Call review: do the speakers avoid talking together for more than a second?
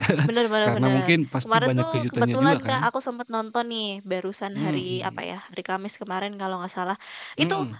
No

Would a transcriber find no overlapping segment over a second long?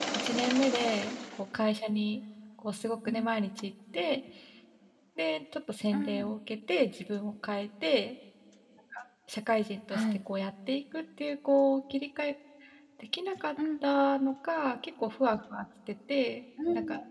Yes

